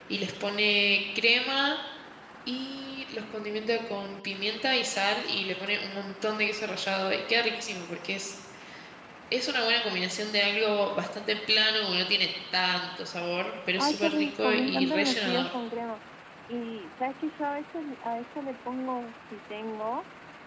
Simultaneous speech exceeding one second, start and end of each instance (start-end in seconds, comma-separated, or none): 13.8-15.5